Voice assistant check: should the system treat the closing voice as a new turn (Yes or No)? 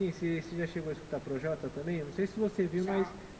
No